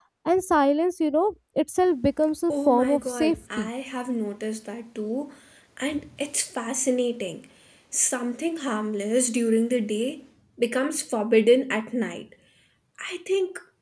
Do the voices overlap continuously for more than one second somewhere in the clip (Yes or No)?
Yes